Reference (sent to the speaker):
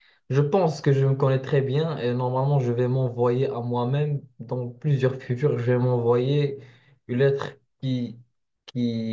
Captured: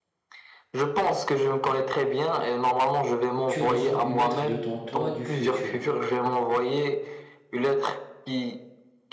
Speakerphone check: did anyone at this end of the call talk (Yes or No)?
Yes